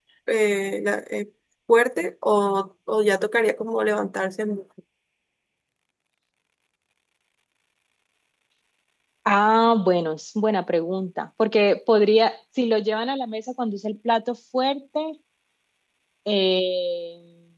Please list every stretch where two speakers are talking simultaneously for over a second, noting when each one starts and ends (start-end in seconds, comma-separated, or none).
none